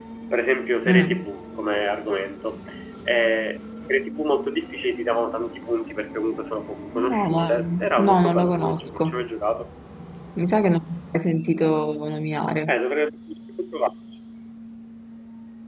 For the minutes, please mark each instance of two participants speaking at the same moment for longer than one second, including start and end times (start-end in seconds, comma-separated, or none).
7.0-9.3